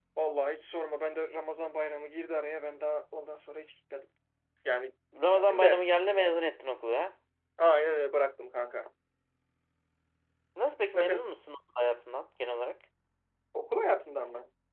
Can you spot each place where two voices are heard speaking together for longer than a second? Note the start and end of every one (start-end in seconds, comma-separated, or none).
none